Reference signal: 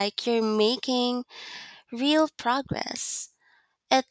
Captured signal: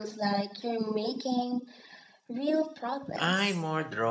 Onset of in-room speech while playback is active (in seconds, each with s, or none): 3.2 s